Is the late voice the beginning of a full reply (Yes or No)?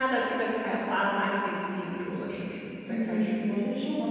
Yes